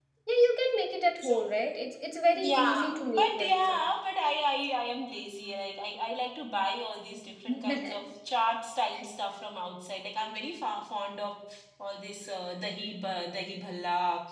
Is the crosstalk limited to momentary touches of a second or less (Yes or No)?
No